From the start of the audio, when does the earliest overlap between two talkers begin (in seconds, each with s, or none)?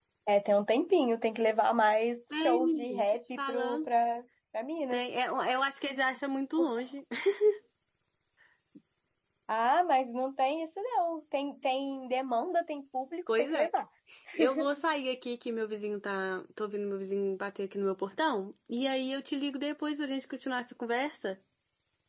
2.3 s